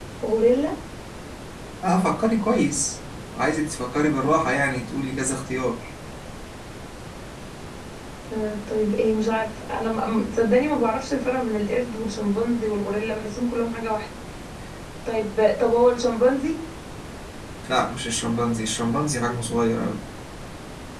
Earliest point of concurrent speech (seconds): none

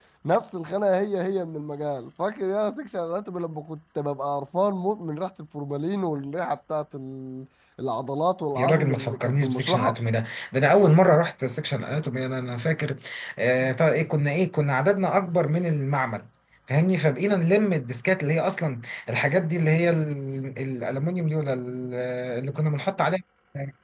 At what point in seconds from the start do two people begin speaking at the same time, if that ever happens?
8.6 s

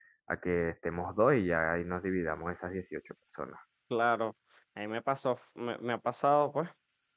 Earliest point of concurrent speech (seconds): none

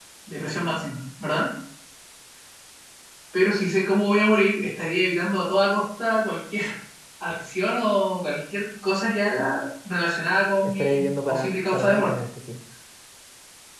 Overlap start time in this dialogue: 10.6 s

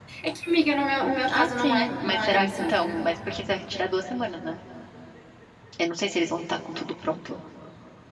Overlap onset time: 1.3 s

